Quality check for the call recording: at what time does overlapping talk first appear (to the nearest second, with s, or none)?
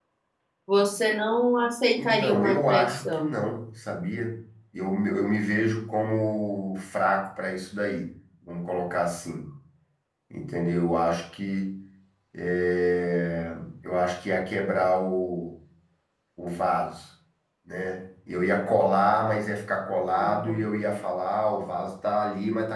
2 s